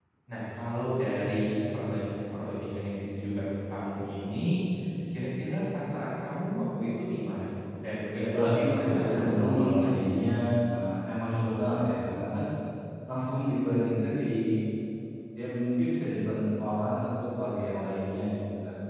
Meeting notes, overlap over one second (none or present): present